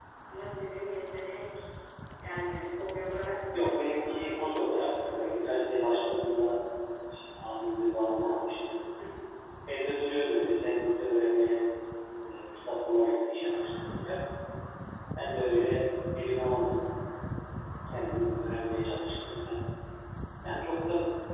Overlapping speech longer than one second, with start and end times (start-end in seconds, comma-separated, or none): 3.5-6.0